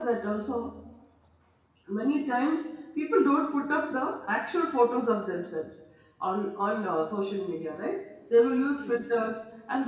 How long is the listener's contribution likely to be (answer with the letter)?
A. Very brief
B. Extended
A